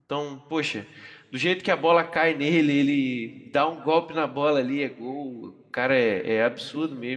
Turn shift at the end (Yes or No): Yes